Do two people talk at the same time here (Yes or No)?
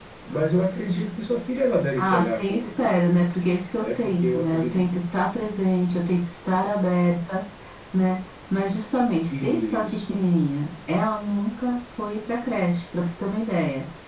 Yes